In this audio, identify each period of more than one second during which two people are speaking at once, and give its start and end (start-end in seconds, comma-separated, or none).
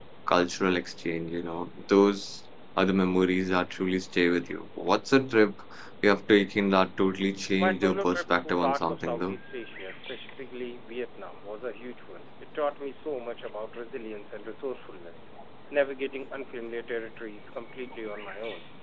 7.6-9.4